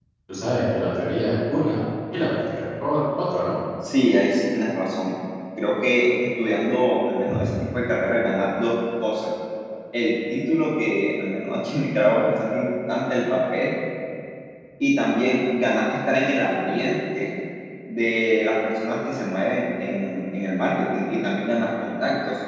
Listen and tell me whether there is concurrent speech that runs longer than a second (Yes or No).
No